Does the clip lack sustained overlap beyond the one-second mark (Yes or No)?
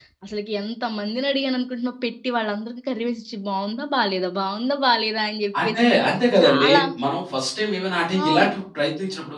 Yes